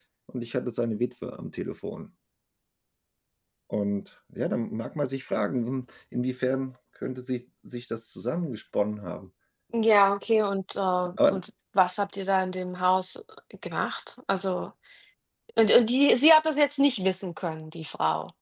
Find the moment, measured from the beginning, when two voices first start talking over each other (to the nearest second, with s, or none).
none